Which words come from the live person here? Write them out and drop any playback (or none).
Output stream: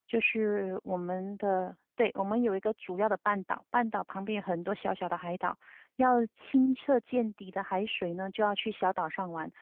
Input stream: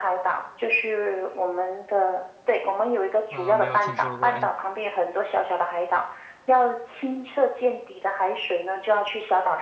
呃，没有听说过哎。